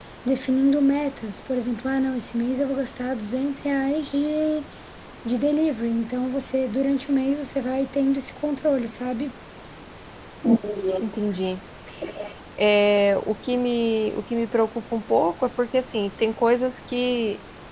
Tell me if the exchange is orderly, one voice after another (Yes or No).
Yes